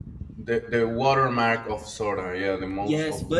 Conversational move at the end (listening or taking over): taking over